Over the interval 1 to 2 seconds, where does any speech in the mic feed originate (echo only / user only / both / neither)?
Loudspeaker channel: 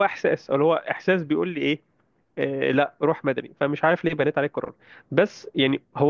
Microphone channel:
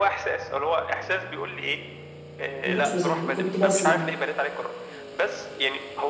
echo only